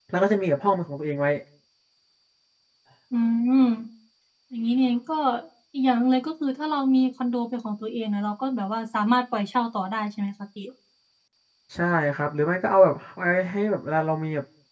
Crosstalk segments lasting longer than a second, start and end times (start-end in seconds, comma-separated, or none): none